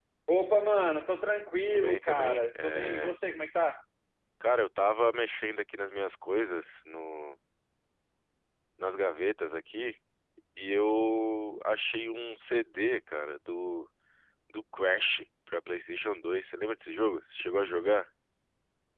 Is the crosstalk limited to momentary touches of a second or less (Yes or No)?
No